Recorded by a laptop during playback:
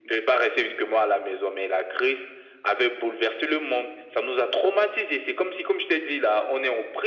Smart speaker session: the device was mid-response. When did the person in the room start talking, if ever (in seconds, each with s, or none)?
none